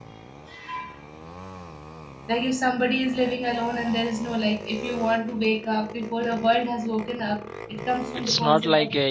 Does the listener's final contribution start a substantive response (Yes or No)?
Yes